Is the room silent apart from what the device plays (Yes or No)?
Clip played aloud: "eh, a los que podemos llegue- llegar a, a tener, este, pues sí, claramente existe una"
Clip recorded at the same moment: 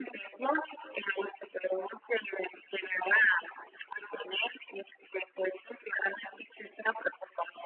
Yes